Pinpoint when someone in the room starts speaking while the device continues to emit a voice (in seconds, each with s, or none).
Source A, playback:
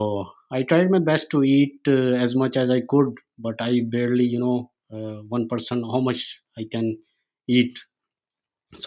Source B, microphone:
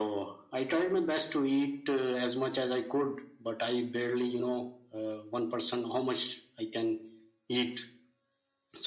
none